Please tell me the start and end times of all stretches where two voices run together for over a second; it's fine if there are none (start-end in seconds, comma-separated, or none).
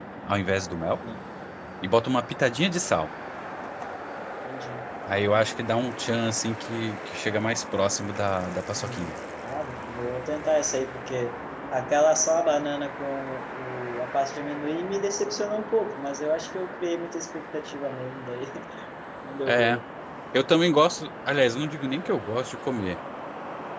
none